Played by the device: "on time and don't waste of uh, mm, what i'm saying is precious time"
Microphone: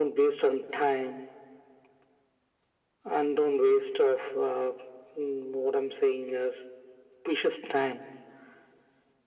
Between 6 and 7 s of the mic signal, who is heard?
echo only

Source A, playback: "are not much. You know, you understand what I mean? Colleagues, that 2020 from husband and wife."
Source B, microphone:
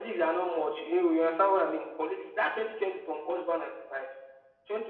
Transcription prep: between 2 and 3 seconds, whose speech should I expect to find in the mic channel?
echo only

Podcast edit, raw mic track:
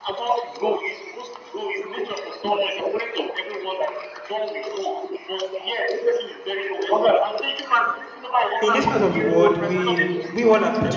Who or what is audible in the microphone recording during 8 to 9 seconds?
both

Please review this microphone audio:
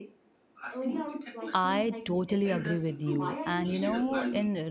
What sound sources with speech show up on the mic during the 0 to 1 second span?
echo only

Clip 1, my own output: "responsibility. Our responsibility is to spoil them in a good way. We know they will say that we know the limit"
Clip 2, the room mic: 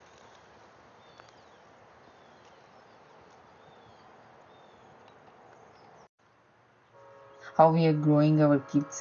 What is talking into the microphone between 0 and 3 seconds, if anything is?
neither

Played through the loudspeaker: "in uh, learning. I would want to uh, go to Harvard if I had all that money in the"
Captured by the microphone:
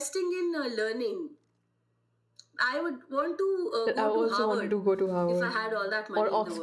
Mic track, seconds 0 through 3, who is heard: echo only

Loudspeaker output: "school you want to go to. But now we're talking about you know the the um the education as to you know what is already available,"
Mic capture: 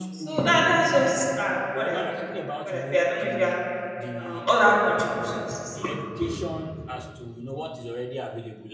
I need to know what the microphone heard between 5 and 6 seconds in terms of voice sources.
both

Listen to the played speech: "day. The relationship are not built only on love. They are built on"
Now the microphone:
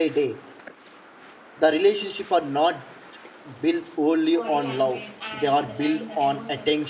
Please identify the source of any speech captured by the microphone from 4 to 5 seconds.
both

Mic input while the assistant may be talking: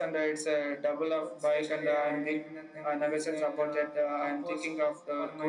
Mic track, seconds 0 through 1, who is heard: echo only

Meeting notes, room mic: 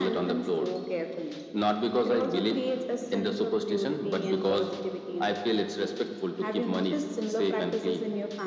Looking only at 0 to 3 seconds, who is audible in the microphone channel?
echo only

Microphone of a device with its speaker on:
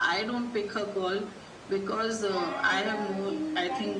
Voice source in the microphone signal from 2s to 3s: both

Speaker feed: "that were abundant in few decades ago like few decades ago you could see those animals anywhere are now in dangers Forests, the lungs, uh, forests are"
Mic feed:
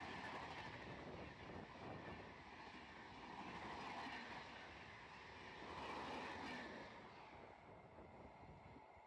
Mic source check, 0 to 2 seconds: neither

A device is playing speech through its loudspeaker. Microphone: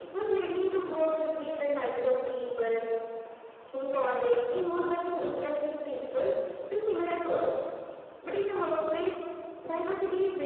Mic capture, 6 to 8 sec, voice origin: echo only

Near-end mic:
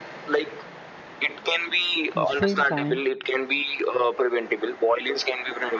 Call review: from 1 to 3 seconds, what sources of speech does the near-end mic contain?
both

